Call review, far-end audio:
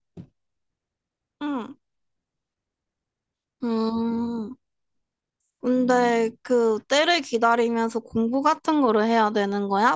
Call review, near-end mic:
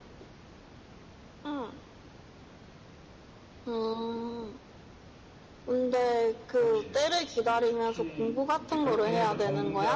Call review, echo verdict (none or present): present